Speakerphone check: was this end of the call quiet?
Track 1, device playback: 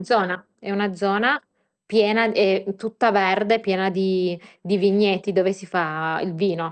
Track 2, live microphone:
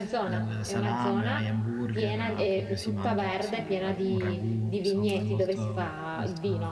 No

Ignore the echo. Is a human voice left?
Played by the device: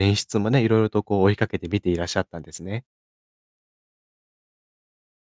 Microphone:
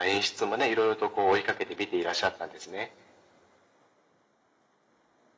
No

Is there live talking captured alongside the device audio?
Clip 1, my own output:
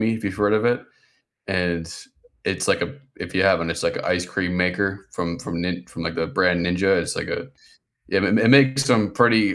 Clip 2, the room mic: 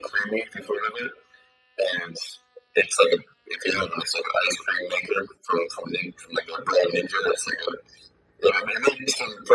No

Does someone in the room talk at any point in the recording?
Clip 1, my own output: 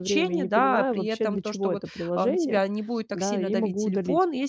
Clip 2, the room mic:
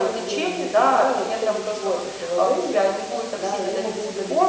No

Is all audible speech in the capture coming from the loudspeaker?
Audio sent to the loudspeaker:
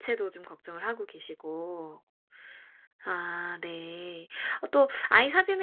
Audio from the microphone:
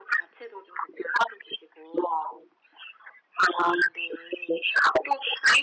Yes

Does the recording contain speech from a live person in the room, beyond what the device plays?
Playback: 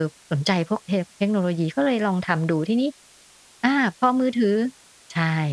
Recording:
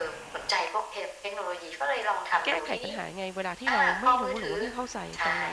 Yes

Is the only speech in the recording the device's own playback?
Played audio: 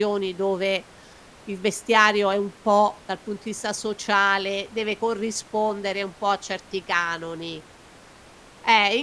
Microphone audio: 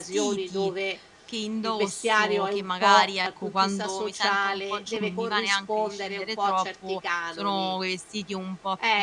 No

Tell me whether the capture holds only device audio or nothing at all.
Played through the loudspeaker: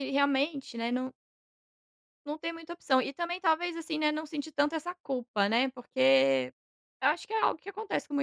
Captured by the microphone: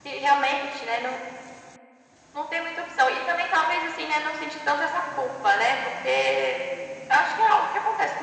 Yes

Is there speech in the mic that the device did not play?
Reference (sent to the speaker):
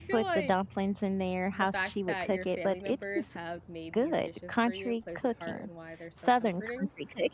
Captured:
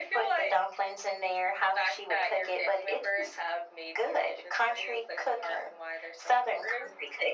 No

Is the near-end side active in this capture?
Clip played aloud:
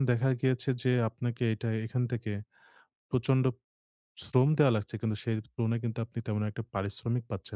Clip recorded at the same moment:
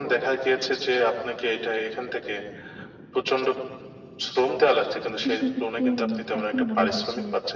Yes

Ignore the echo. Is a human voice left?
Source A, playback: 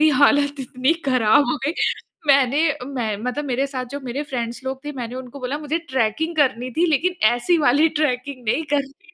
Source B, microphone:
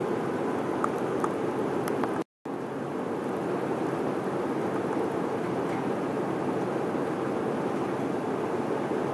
No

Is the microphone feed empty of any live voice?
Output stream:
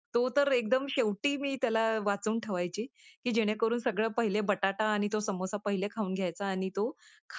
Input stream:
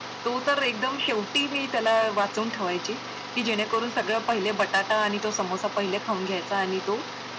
Yes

